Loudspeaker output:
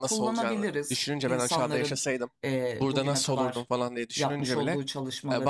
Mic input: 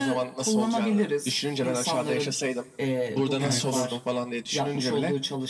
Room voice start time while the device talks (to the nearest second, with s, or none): 3 s